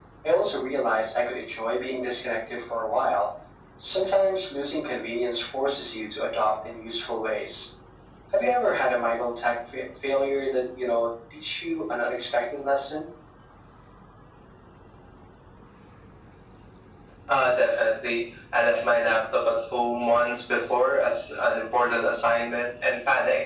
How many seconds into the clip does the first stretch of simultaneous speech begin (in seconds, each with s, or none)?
none